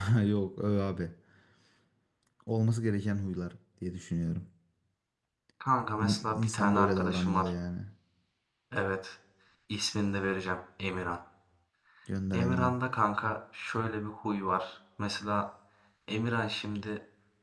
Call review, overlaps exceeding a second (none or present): present